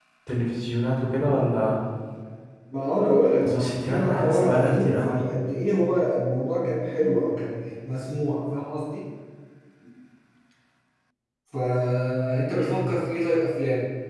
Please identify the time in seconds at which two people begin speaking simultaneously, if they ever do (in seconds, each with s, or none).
3.4 s